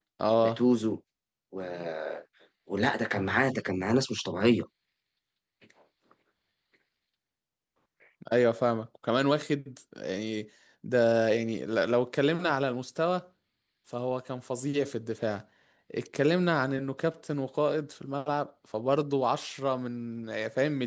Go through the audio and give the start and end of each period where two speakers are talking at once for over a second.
none

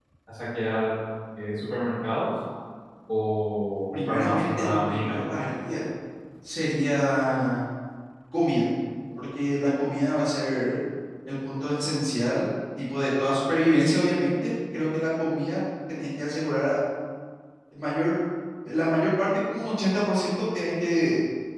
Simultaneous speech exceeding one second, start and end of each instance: 3.9-5.3

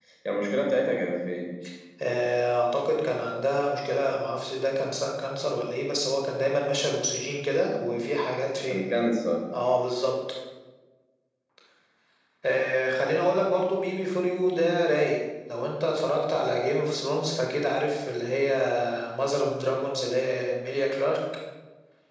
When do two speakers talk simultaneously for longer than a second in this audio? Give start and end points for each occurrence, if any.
none

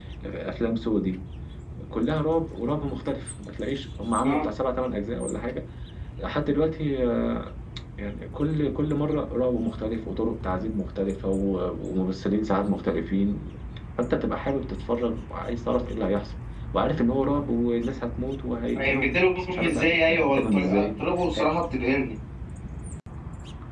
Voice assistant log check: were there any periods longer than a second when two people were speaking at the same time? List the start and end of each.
18.8-20.9

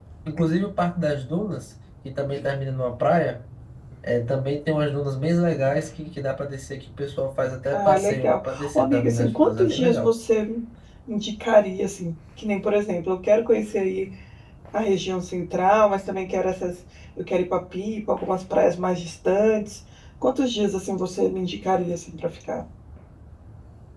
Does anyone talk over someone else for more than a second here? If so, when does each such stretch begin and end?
7.7-10.1

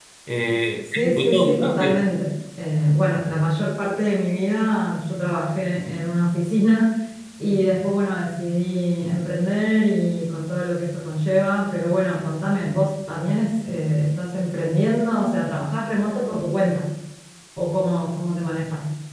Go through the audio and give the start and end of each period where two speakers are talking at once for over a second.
0.8-2.0

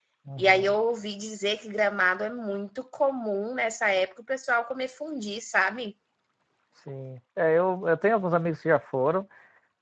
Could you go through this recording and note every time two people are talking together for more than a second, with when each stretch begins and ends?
none

